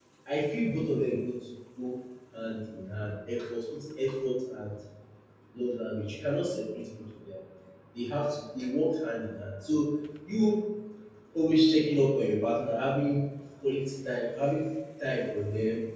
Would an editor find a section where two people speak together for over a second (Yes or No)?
No